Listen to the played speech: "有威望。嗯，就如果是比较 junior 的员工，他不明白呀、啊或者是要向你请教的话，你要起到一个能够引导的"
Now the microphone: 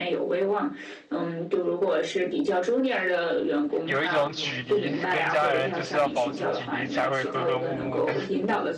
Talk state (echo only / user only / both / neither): both